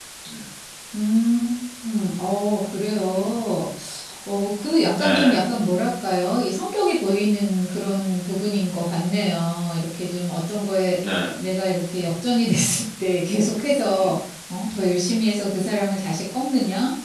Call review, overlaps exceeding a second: none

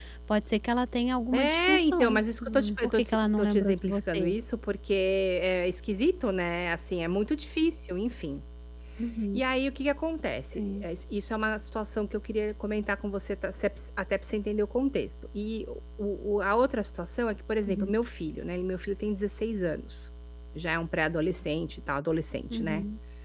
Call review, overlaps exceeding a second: present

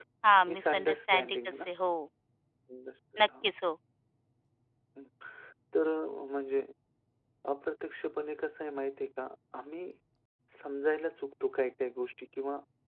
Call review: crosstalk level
present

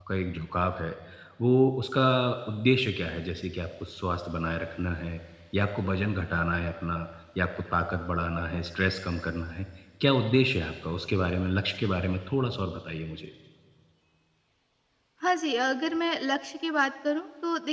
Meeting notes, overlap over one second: none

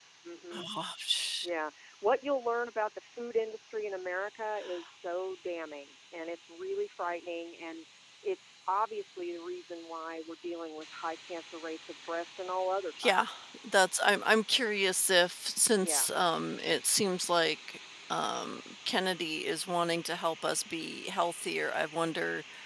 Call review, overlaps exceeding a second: none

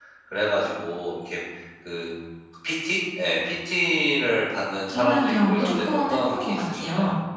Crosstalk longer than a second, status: present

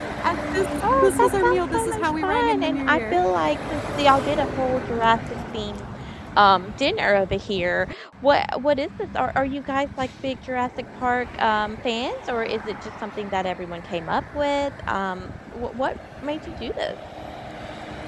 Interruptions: present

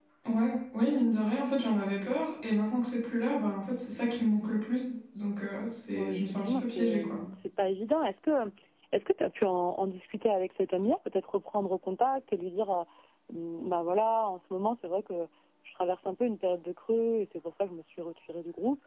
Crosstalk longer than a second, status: present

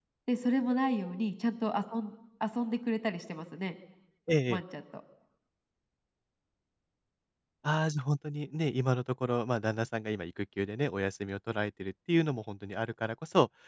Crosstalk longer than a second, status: none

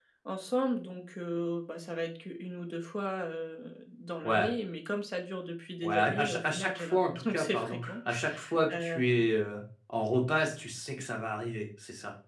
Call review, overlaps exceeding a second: present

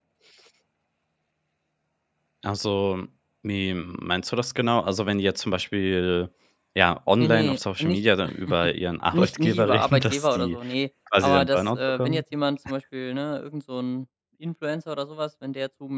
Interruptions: present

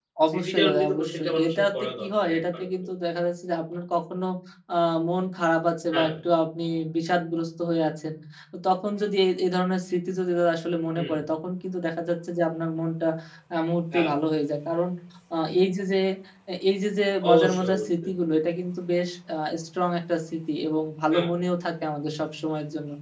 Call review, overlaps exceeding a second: present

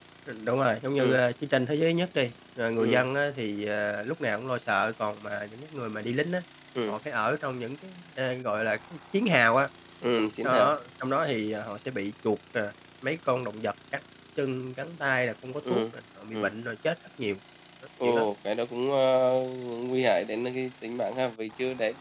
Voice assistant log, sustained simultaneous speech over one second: none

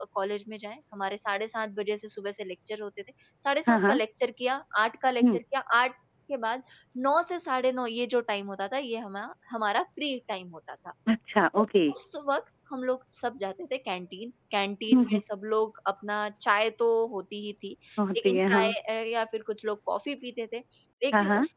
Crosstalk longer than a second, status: none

